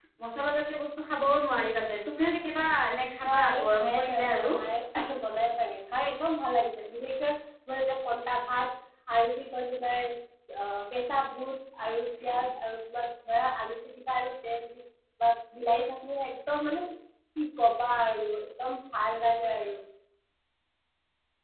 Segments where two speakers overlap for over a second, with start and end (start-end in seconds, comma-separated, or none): 3.2-4.5